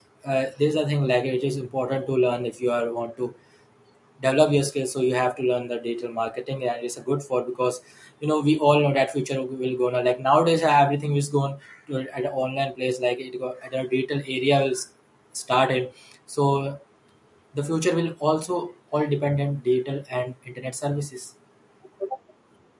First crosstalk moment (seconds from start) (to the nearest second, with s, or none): none